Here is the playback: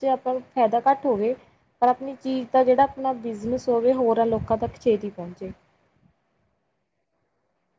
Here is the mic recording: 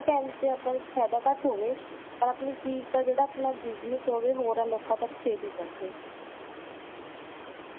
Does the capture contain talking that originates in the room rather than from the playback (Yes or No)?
No